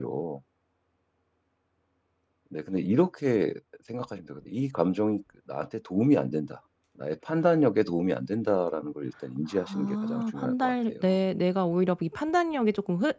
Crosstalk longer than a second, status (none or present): present